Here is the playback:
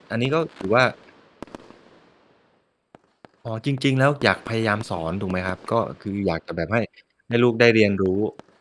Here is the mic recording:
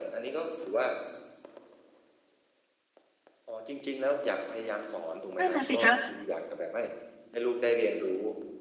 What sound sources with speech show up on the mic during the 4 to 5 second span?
echo only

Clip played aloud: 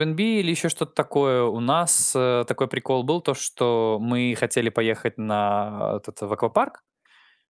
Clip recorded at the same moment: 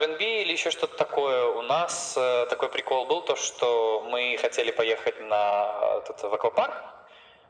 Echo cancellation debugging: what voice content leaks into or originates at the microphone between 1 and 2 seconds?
echo only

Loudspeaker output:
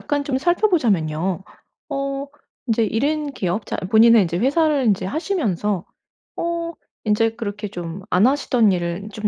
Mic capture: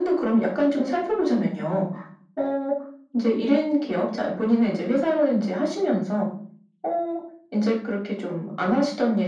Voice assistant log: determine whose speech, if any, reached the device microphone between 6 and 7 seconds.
echo only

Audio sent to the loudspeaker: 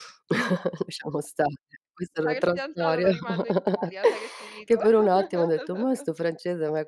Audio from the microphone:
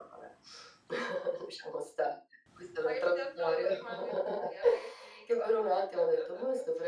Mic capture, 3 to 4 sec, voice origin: echo only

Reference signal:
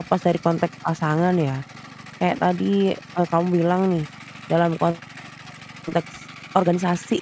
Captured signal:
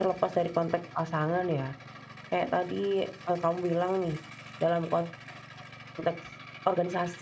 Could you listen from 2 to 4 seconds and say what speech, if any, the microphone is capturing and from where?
echo only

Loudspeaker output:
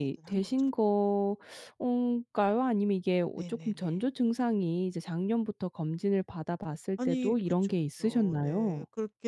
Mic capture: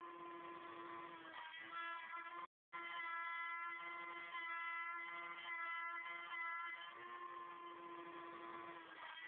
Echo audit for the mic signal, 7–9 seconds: neither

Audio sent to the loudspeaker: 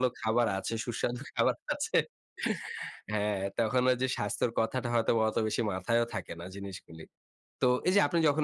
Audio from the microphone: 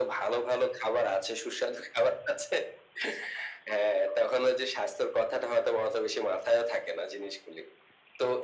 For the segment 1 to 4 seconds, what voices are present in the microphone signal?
echo only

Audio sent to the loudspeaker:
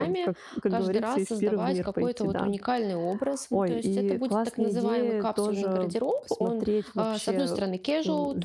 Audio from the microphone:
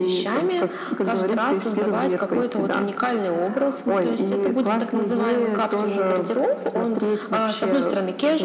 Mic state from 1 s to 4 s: echo only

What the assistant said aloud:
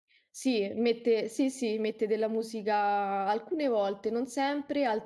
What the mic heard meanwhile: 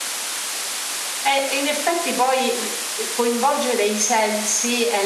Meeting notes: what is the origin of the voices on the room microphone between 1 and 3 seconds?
user only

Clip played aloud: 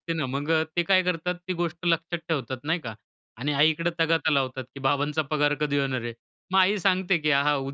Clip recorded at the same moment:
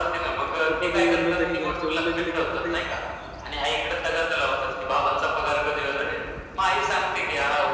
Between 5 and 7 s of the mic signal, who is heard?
echo only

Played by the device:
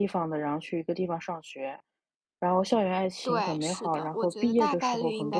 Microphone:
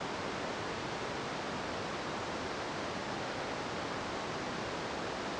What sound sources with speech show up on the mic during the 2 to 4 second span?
neither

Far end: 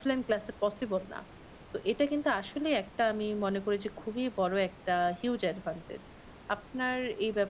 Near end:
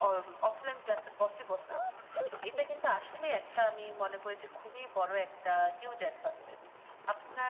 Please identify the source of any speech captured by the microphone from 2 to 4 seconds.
echo only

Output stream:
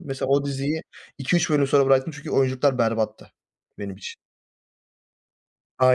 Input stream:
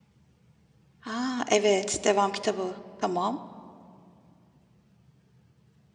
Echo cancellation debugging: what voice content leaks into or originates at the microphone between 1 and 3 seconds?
user only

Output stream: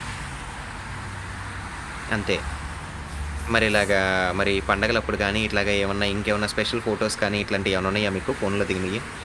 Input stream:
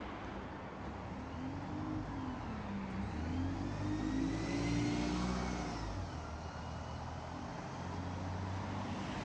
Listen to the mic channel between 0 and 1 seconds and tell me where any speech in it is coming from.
neither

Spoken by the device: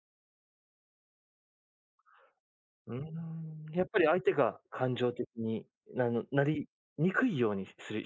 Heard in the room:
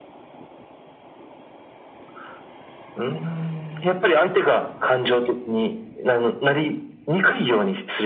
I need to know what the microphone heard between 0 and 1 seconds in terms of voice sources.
neither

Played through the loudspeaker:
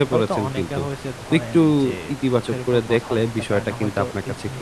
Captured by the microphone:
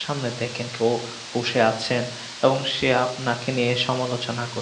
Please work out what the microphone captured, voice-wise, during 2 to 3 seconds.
user only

